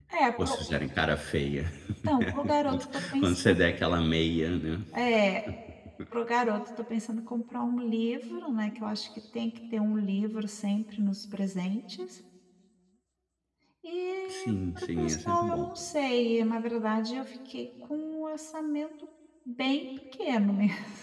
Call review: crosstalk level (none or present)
present